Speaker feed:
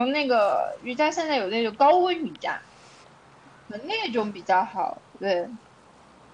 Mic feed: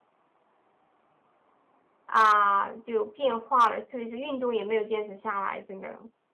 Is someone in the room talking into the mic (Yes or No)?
Yes